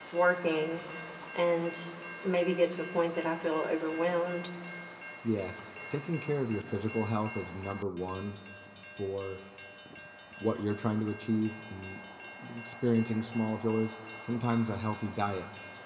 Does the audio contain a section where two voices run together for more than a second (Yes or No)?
No